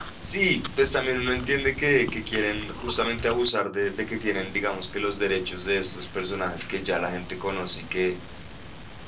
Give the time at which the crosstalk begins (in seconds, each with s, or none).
none